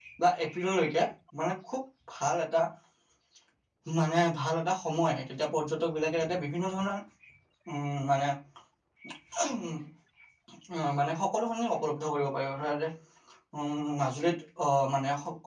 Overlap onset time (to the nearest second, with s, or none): none